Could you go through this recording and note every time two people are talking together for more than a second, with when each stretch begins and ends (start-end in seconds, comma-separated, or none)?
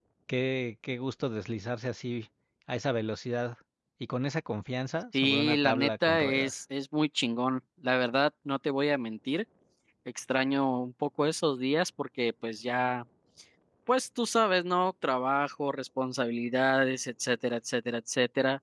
5.1-6.6